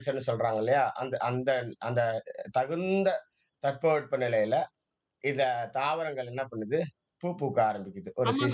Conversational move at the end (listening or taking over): taking over